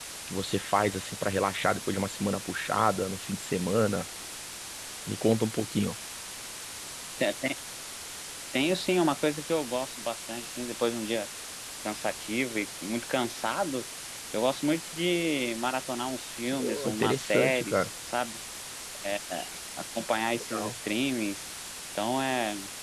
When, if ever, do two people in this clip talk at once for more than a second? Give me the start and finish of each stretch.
16.6-17.9

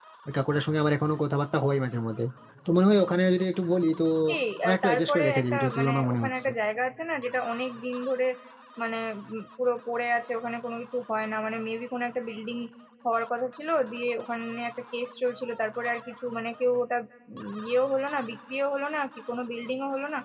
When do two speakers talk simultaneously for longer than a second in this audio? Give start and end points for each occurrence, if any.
4.6-6.5

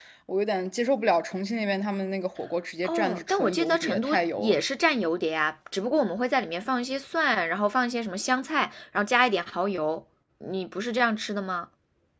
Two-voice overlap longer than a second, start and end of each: 2.8-4.6

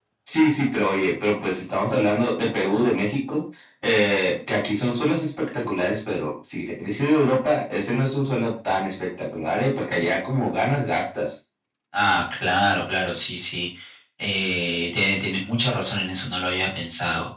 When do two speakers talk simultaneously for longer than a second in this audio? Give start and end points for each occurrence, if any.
none

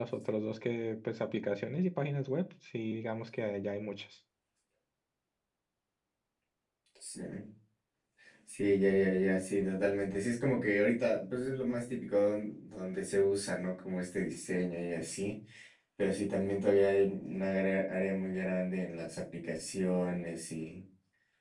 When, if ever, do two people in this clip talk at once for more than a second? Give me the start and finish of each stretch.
none

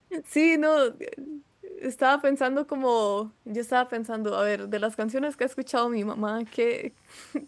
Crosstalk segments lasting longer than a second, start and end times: none

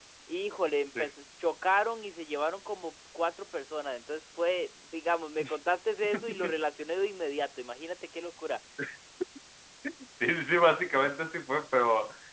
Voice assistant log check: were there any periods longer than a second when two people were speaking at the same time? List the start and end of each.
none

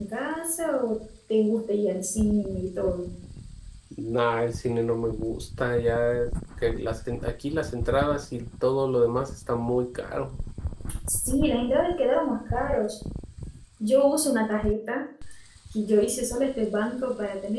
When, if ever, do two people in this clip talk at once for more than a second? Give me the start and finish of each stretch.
none

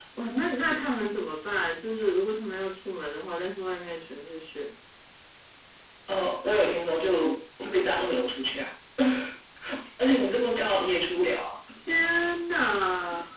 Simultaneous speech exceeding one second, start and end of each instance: none

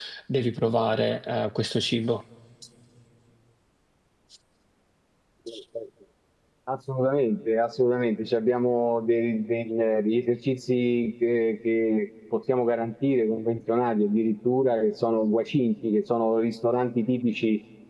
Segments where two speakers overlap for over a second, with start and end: none

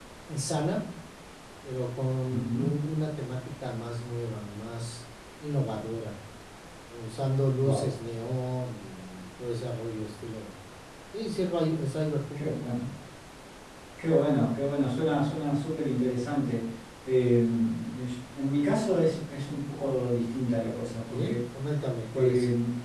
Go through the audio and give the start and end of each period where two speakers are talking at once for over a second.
none

